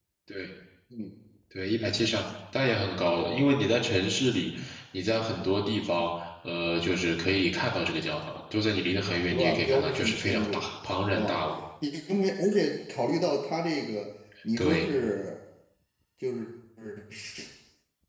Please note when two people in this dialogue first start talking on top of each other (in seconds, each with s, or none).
9.3 s